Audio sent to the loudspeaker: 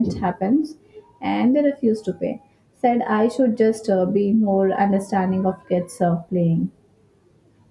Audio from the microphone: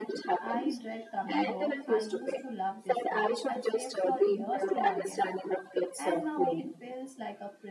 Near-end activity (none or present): present